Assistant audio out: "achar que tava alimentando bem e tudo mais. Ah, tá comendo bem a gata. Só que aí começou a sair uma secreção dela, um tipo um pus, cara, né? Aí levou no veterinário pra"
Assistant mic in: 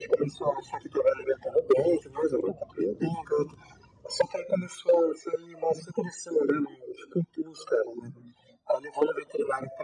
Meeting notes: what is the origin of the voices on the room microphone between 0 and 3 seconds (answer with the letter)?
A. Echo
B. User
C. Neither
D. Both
A